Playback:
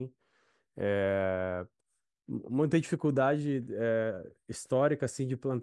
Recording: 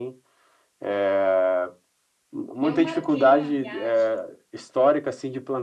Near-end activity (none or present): present